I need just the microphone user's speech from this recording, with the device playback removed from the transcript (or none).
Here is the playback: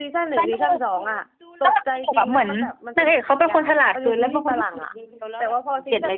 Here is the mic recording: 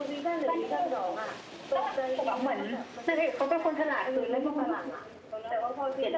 none